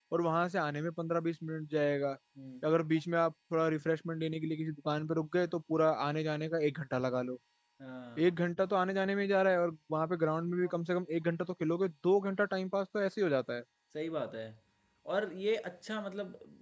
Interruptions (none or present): none